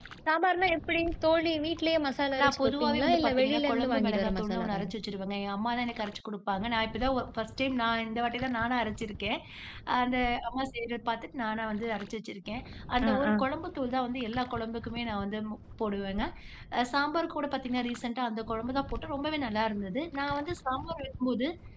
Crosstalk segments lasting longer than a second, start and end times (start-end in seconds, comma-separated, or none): 2.4-4.9